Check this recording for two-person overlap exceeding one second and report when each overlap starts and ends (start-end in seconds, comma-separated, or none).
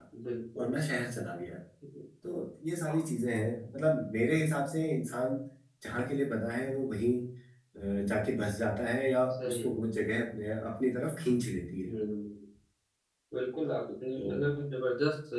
none